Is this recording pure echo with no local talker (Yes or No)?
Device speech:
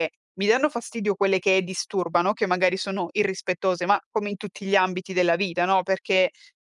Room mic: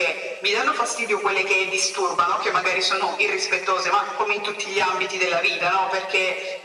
Yes